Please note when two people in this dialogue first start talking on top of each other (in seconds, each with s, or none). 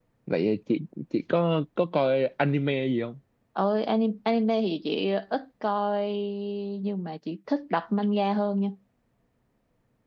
none